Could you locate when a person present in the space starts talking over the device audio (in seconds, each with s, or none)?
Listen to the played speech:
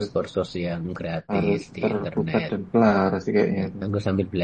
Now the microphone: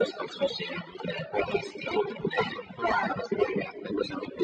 none